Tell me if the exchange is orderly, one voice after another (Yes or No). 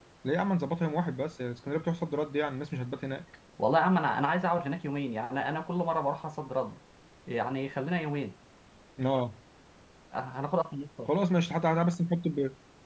Yes